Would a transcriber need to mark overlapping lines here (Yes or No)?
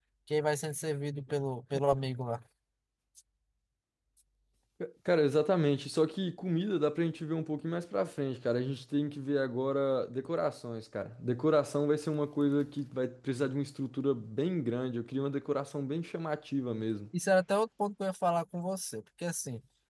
No